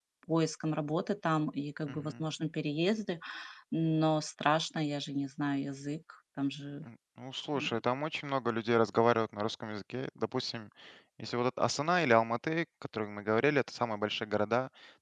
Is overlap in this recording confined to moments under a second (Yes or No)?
Yes